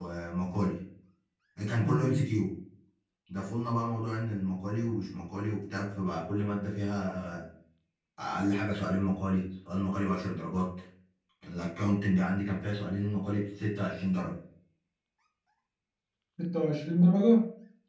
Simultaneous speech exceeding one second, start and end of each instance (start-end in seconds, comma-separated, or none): none